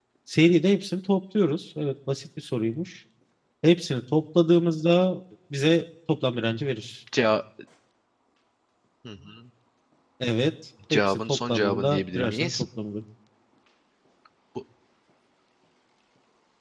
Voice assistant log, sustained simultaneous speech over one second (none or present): present